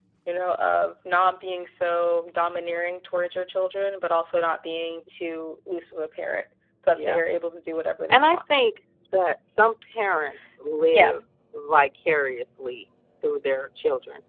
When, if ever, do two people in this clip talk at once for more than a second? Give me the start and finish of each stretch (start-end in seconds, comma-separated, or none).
none